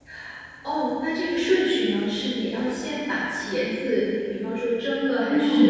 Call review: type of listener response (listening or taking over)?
taking over